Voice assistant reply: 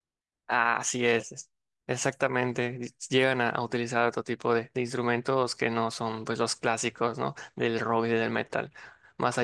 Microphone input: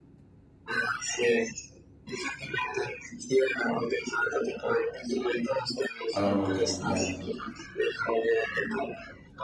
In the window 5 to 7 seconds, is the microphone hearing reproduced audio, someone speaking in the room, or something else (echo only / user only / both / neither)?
both